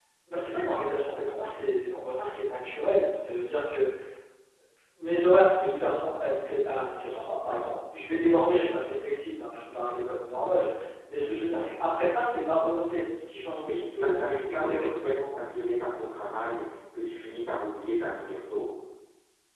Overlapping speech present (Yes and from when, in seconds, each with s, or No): Yes, from 13.6 s